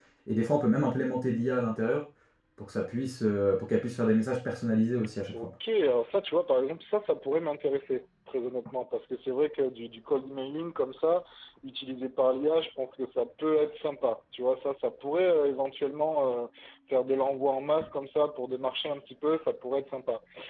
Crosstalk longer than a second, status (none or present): none